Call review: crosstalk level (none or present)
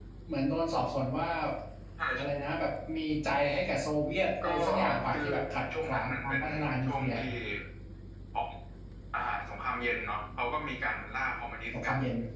present